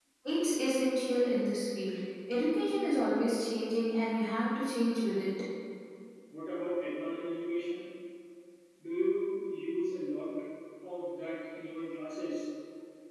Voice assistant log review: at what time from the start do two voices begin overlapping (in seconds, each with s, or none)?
none